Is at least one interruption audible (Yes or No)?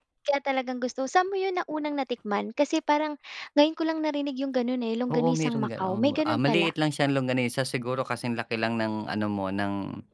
Yes